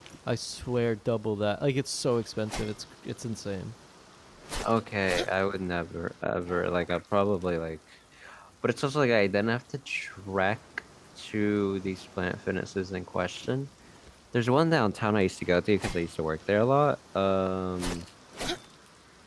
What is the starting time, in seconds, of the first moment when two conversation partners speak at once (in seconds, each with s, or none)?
none